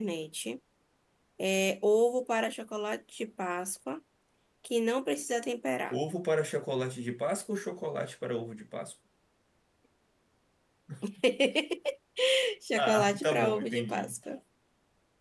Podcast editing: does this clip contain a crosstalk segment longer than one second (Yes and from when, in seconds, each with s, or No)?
Yes, from 12.8 s